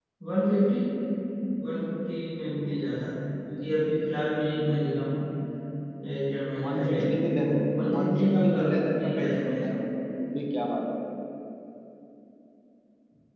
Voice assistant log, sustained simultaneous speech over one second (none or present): present